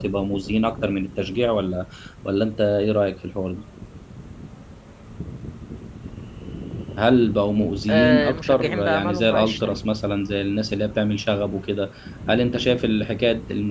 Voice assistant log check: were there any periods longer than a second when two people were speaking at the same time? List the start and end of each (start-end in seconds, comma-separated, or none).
7.9-9.8